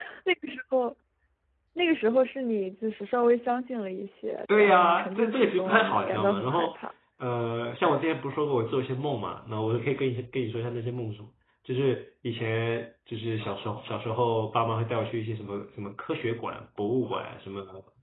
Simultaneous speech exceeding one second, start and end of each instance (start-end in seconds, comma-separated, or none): 4.6-6.8